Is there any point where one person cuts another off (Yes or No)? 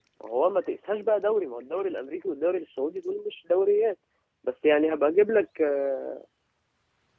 No